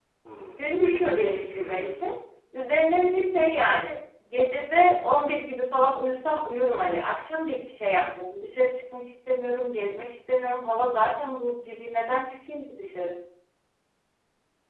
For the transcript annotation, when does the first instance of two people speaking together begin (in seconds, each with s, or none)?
0.6 s